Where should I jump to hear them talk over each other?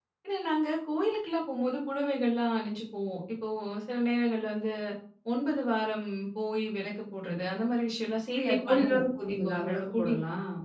8.3 s

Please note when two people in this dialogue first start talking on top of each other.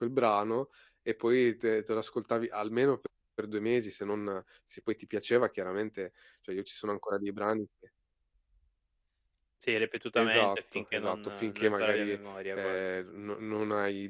10.2 s

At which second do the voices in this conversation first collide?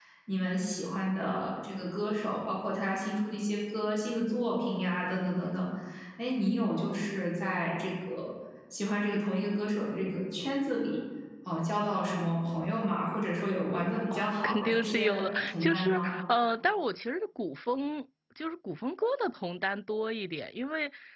14.1 s

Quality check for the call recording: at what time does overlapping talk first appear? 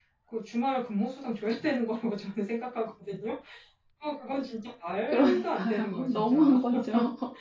5.1 s

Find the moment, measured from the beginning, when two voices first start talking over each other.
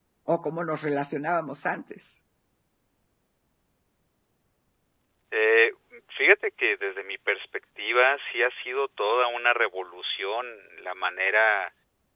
none

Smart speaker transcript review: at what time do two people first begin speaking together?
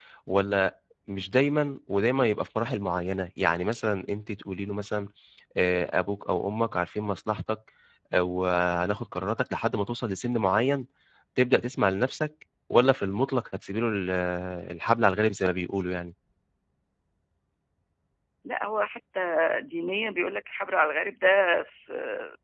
none

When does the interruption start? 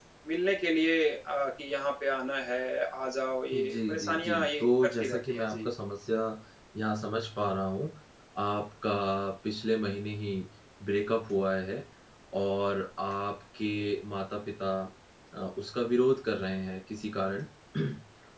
3.5 s

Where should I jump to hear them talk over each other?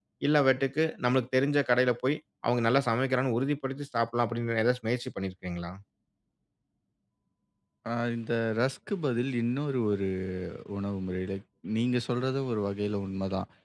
none

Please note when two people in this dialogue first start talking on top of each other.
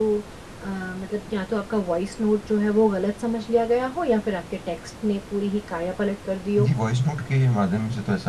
none

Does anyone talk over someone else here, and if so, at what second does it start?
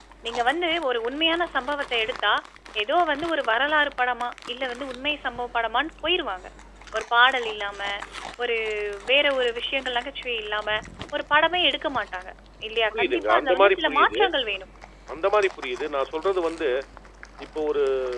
12.9 s

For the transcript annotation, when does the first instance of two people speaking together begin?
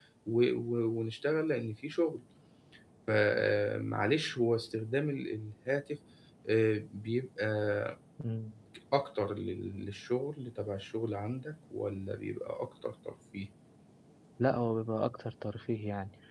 none

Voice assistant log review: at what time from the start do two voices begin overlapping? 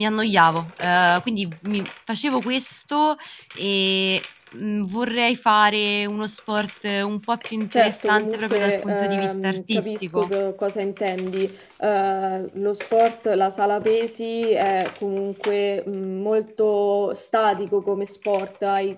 7.7 s

